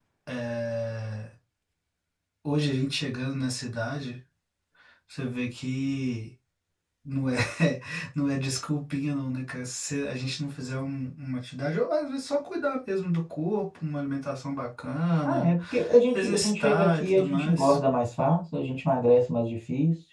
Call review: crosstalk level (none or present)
present